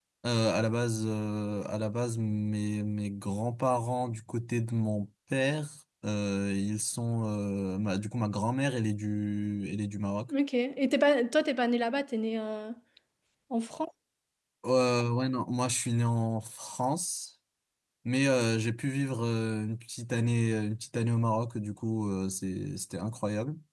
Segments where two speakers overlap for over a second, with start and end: none

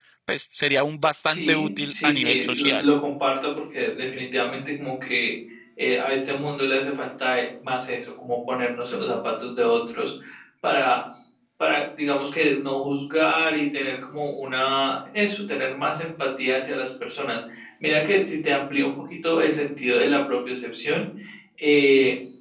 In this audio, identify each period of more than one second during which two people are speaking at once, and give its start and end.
1.2-2.9

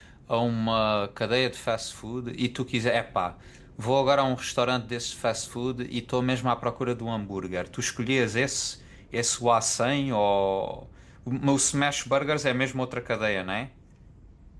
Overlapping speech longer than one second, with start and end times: none

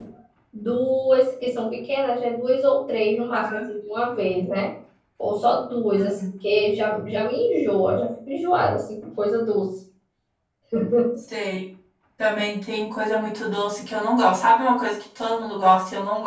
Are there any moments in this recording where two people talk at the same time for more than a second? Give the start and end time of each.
none

